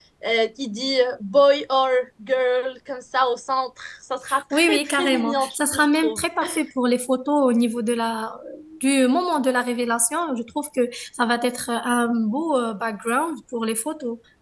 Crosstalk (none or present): present